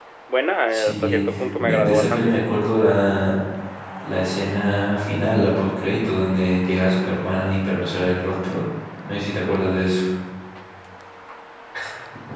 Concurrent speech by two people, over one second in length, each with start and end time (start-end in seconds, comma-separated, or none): 0.7-2.4